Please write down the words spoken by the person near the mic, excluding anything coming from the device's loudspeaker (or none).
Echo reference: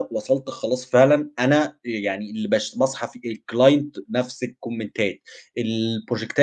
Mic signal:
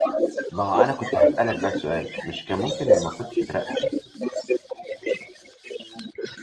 ما هو أنا كنت هاسألك بقي سؤال، مش كان ممكن لمّا كنت تترقى،